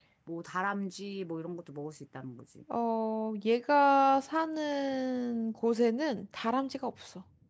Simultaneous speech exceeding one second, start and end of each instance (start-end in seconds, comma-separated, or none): none